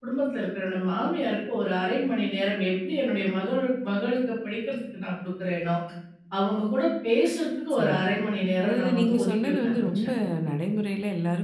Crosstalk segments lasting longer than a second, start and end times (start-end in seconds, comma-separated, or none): 8.6-10.1